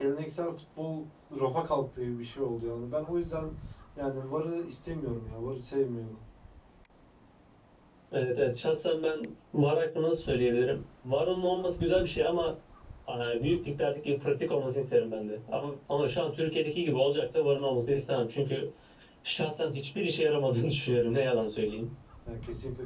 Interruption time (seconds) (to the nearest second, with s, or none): none